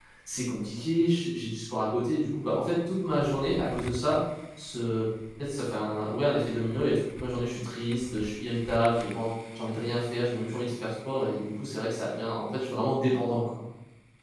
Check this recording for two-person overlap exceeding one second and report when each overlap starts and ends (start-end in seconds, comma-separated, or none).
none